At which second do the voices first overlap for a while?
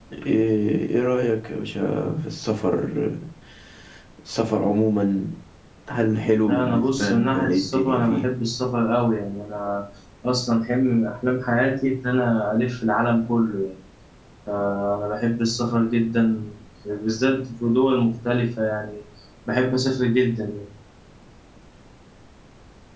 6.4 s

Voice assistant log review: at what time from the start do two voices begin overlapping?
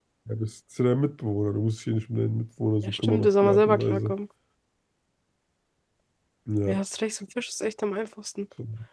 2.8 s

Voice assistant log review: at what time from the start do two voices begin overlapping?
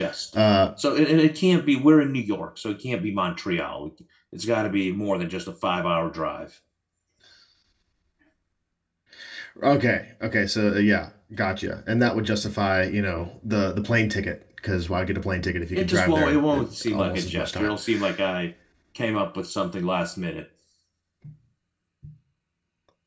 15.7 s

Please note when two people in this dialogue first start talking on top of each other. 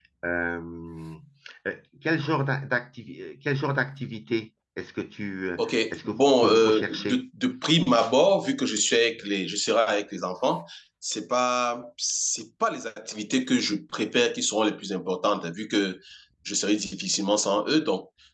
5.6 s

